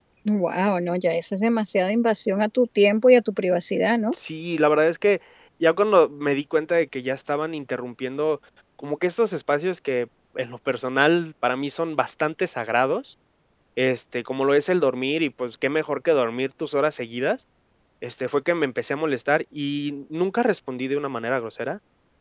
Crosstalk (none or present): none